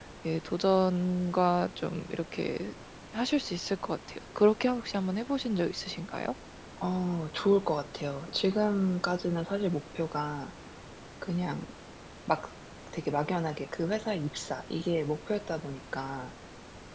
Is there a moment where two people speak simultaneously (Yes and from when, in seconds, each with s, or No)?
No